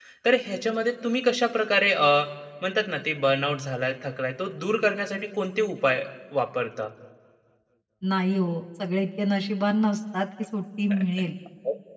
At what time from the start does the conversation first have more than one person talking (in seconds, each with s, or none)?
none